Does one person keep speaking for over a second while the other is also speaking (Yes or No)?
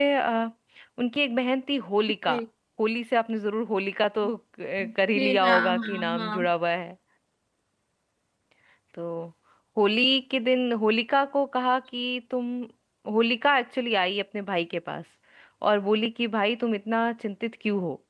Yes